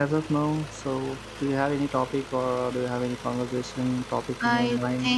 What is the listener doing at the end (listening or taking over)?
taking over